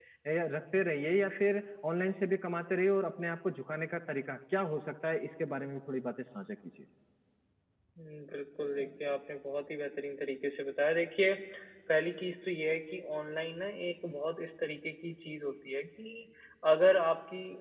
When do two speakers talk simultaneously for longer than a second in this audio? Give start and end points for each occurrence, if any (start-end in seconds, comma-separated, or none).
none